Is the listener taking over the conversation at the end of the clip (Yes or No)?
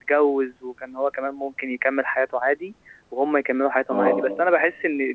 No